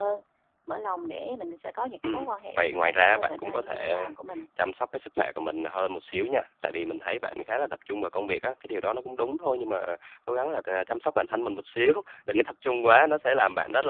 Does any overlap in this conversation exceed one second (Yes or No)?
Yes